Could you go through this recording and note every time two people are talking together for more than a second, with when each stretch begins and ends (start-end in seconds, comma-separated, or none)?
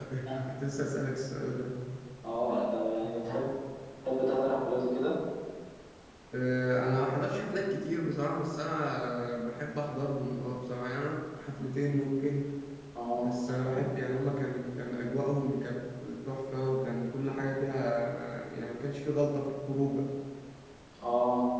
none